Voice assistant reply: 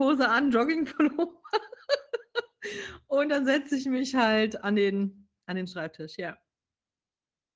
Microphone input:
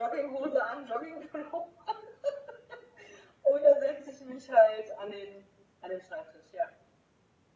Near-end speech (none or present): none